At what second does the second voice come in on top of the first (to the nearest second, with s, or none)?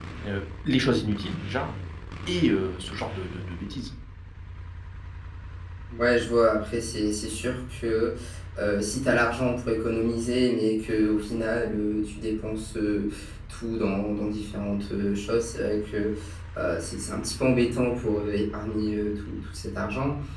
none